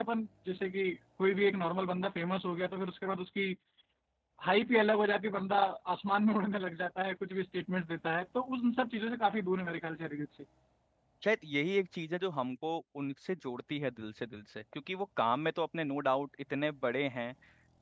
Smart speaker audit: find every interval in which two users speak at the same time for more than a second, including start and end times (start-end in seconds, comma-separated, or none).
none